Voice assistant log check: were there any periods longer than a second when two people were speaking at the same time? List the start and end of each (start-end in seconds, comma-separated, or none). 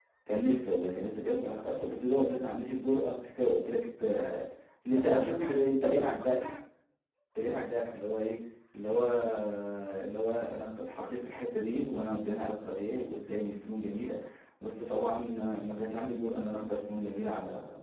4.9-6.6